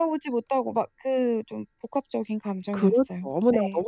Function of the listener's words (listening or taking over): taking over